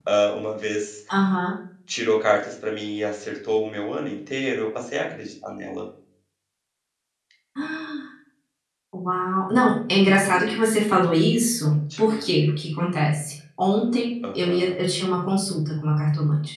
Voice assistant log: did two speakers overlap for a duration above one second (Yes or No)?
No